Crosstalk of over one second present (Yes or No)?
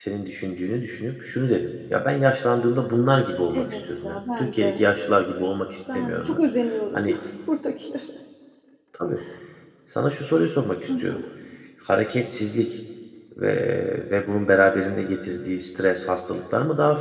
Yes